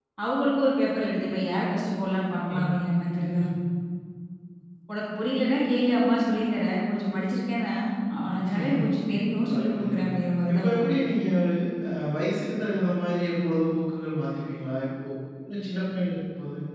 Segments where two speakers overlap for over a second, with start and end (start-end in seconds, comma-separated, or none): none